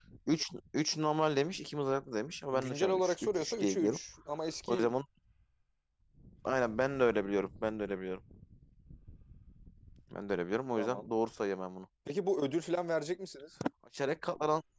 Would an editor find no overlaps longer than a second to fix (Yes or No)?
No